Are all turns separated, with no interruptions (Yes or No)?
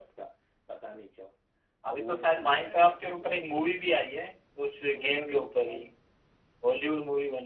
No